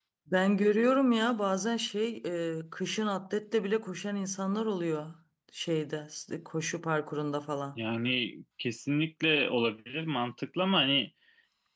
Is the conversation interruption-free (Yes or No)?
Yes